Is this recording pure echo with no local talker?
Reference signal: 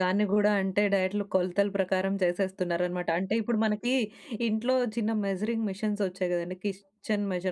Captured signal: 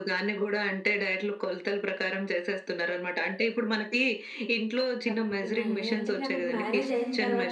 No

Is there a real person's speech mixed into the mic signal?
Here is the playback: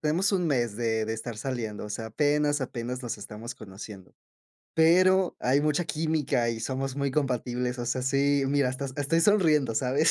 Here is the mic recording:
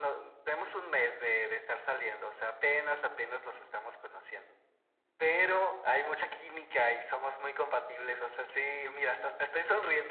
No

